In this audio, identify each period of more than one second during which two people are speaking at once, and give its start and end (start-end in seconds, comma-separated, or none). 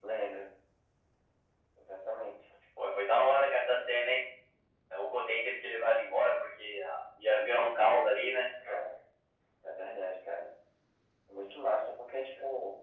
none